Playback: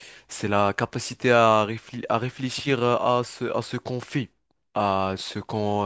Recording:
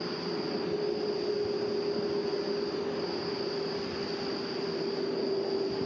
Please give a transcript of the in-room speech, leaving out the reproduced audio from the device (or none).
none